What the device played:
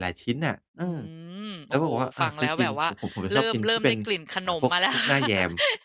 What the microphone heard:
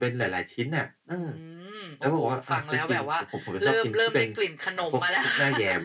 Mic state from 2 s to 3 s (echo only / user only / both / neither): echo only